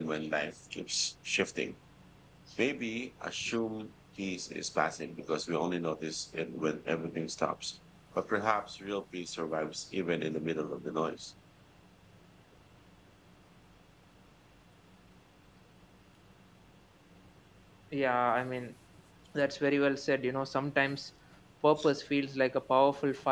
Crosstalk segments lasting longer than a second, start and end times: none

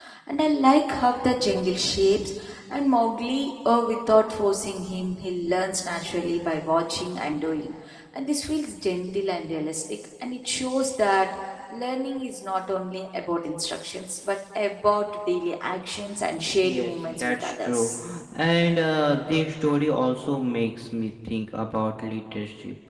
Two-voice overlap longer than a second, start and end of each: 16.6-17.9

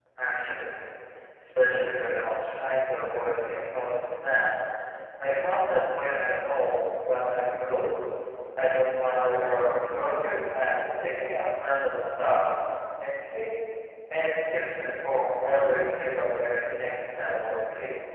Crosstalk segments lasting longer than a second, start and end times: none

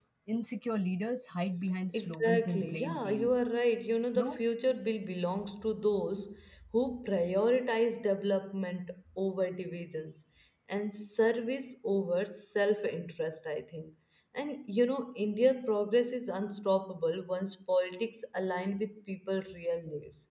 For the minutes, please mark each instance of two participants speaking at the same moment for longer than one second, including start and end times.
1.9-3.5

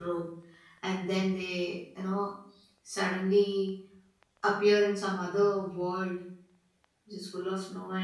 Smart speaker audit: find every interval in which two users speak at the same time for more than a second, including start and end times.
none

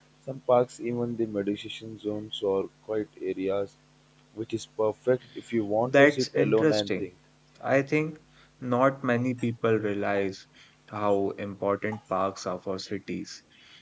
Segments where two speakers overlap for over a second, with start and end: 5.8-7.1

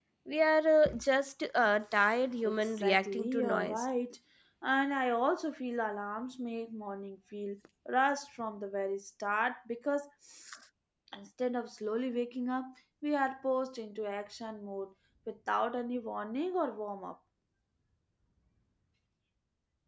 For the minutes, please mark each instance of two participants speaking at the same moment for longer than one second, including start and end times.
2.4-3.9

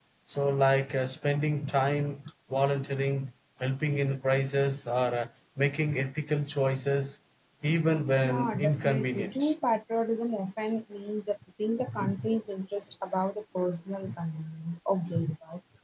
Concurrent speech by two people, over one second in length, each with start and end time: 8.2-9.5

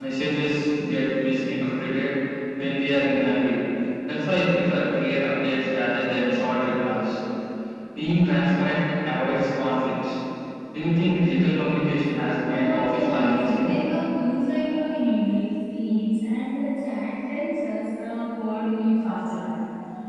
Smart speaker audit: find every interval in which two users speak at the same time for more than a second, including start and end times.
12.4-13.7

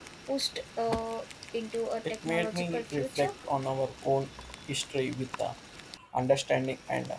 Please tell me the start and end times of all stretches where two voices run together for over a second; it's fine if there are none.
2.1-3.3

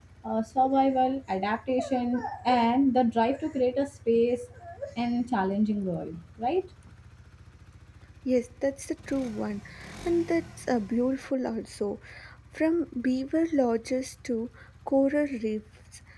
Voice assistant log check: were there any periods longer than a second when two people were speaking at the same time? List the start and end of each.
none

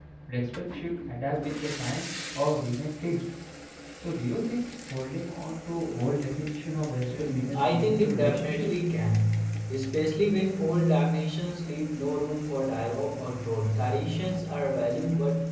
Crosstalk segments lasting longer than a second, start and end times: 7.1-8.7

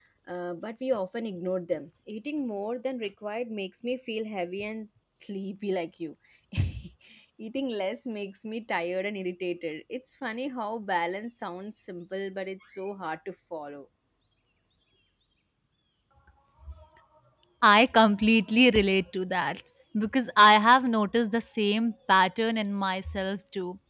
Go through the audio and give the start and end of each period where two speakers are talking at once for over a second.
none

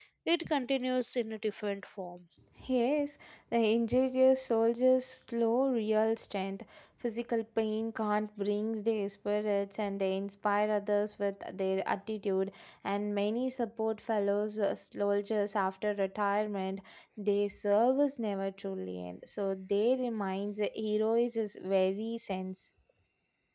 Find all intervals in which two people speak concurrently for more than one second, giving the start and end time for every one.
none

